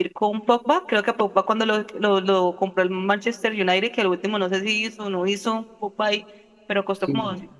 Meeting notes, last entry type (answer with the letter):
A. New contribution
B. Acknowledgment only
B